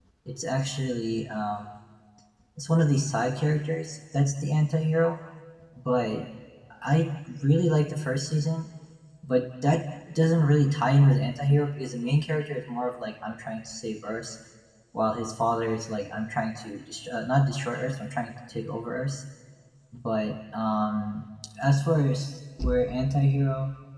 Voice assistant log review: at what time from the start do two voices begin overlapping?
none

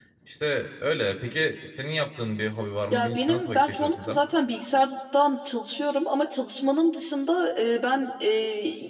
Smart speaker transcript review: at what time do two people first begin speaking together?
2.9 s

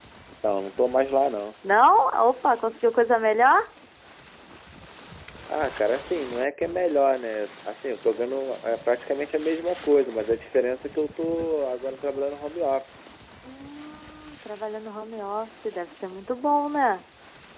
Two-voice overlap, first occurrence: none

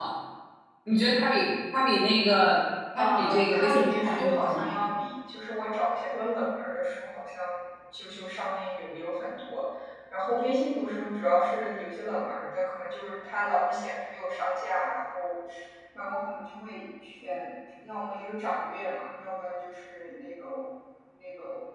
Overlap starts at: 3.0 s

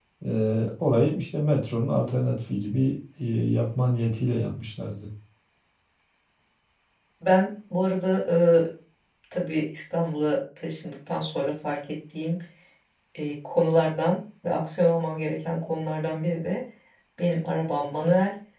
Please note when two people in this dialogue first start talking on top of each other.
none

